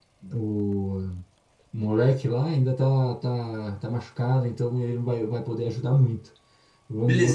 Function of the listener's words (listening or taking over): taking over